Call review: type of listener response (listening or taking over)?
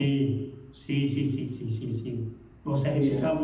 listening